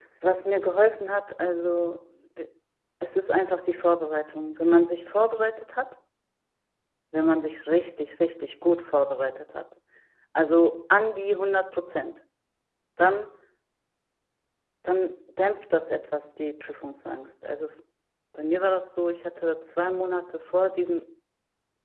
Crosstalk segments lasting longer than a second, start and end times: none

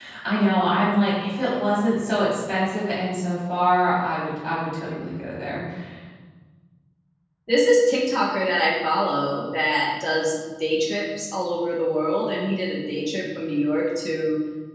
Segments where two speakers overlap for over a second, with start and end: none

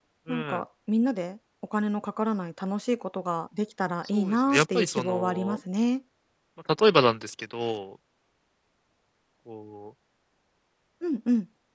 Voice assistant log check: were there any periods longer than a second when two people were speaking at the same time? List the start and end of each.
4.1-5.6

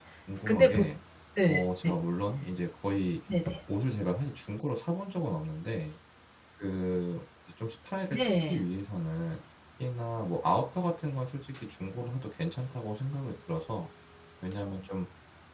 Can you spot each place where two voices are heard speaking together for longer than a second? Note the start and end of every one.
none

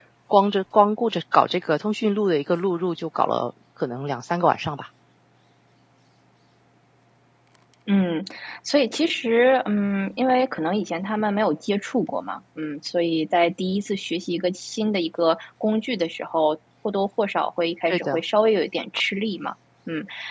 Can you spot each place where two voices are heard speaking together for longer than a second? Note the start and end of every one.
none

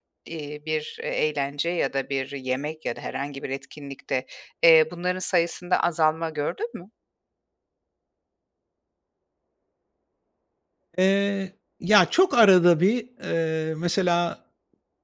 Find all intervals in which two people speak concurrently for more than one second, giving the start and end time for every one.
none

